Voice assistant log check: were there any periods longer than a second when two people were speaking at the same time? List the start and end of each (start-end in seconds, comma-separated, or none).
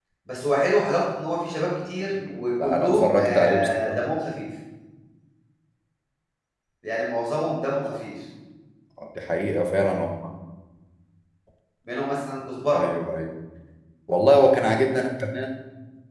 2.6-4.0